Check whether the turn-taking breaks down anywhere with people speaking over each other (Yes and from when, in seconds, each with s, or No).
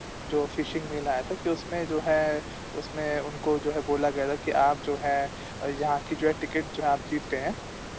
No